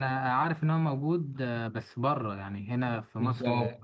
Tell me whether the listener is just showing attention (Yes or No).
No